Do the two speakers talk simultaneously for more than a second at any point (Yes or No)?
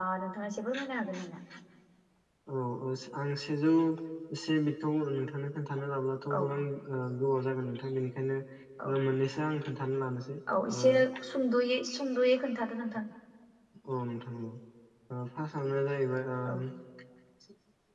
No